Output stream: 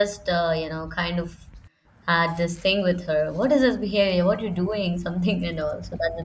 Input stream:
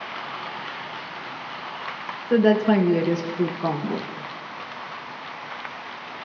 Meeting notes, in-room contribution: present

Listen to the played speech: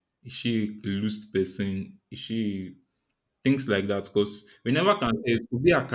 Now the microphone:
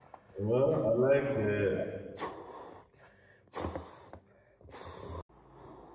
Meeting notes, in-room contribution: present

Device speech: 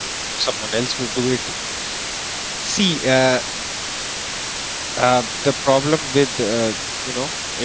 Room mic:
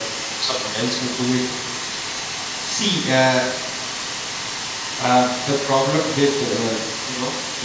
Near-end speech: none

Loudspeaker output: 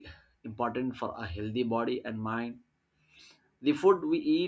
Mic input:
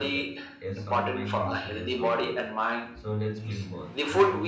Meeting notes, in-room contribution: present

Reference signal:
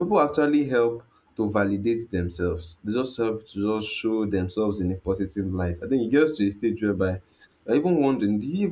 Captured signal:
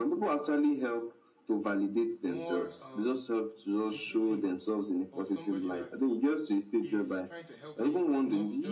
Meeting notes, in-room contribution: present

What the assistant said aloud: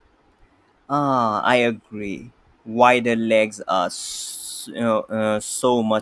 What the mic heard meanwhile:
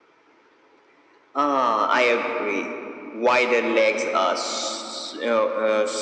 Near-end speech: none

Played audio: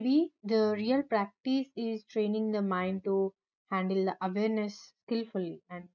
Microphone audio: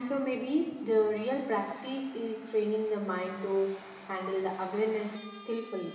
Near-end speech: none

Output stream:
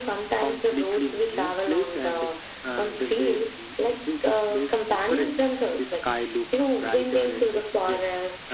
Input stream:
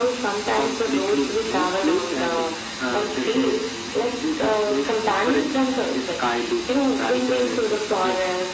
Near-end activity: none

